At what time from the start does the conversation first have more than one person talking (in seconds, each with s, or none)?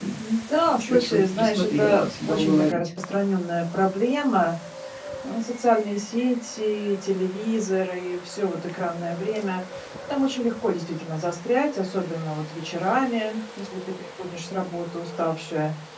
0.7 s